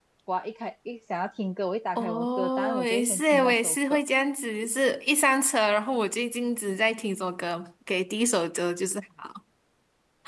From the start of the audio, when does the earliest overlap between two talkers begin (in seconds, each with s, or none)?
2.0 s